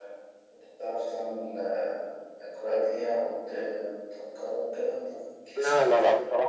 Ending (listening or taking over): taking over